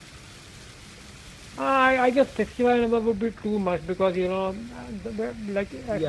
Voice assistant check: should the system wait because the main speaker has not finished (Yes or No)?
Yes